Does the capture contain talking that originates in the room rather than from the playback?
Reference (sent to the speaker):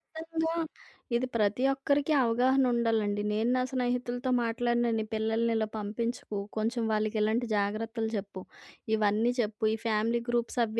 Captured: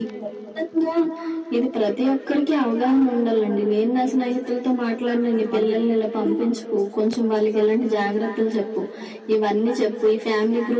Yes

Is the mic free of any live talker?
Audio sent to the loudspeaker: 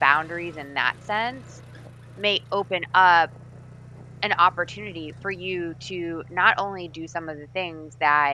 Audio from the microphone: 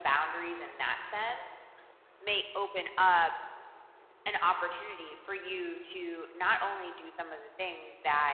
Yes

